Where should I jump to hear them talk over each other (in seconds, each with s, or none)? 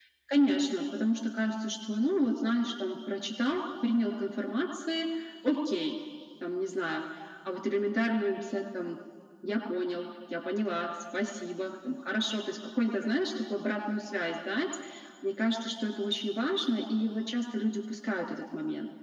none